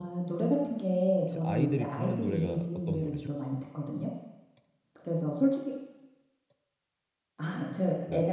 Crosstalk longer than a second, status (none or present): present